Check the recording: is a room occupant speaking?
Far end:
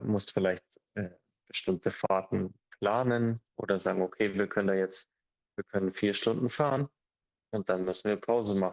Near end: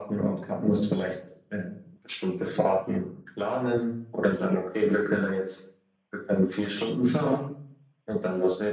No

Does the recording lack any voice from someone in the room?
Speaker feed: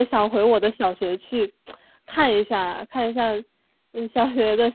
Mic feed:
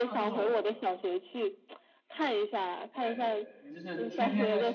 No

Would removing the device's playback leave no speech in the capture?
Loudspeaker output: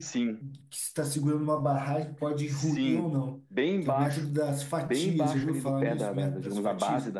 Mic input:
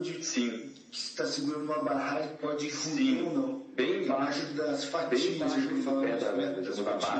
Yes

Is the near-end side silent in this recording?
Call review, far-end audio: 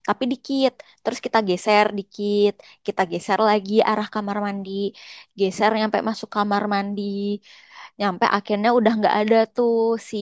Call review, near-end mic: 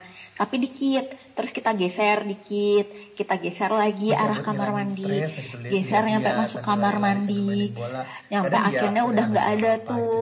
No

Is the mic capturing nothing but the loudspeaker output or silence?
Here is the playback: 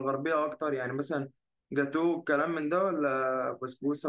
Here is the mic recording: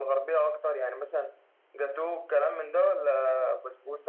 Yes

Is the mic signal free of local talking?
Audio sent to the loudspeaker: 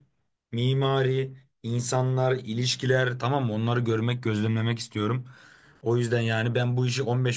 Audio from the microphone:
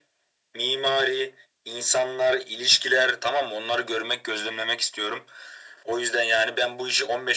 Yes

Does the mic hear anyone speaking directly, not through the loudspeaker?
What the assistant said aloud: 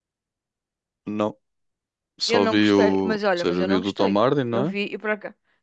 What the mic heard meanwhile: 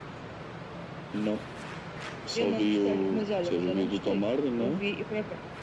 No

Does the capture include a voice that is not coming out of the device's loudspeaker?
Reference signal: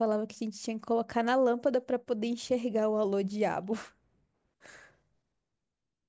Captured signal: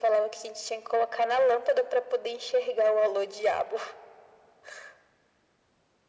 No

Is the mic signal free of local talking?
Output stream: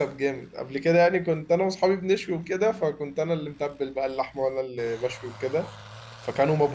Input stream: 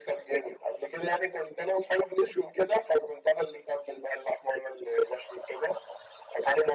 Yes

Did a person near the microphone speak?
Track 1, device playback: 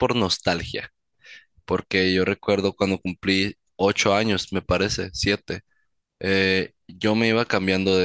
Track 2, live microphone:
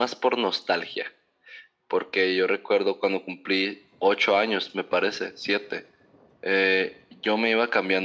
No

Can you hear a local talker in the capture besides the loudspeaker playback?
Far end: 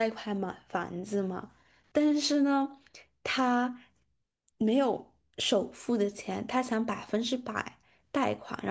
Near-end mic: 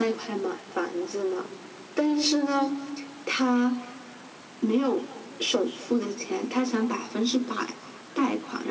No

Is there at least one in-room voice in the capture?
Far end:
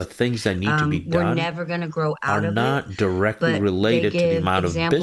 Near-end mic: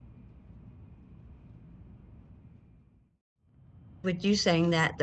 Yes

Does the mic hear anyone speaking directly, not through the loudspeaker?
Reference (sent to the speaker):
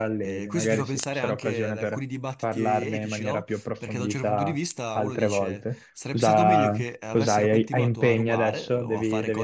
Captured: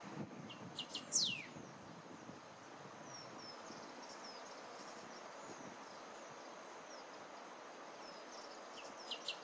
No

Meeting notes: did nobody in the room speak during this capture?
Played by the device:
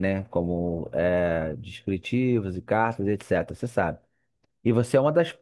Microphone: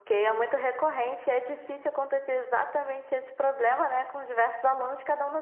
No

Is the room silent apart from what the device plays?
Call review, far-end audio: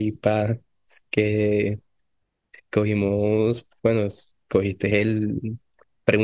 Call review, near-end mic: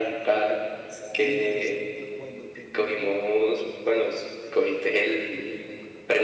No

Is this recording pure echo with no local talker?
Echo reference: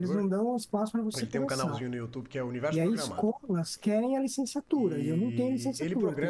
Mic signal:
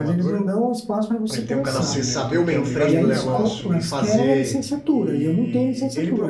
No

